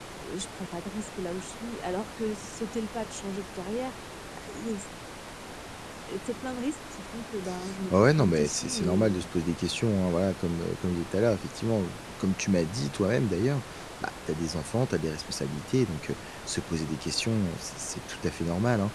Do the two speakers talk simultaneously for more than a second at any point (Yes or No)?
Yes